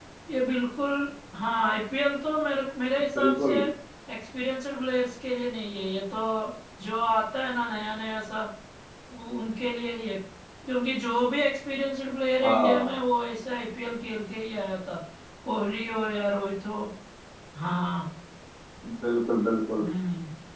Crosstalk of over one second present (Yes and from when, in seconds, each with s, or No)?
No